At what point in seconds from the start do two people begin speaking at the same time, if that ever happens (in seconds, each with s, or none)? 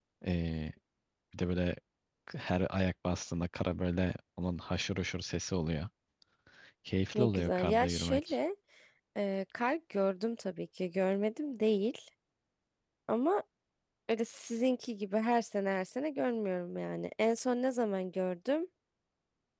7.1 s